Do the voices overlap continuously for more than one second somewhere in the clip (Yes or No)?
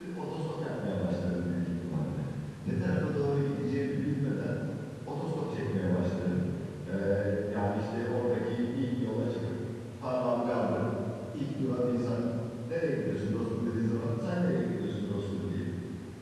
No